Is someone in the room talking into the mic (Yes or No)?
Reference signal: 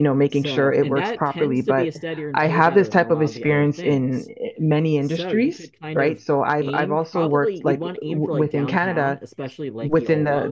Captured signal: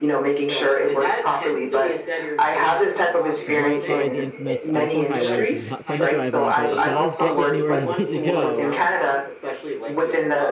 Yes